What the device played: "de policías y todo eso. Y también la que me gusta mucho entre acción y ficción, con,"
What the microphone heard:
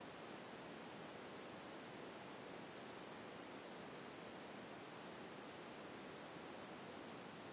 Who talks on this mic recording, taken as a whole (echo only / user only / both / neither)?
neither